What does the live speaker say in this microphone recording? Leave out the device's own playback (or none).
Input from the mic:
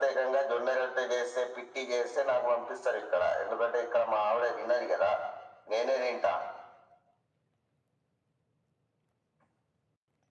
none